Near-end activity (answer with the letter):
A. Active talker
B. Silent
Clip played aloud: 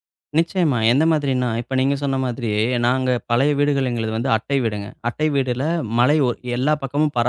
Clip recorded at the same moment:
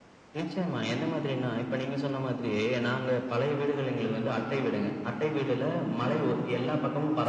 A